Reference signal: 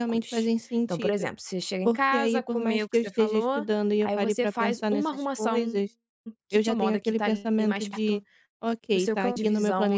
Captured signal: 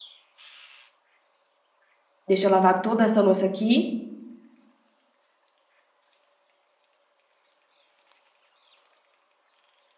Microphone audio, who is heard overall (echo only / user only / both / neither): user only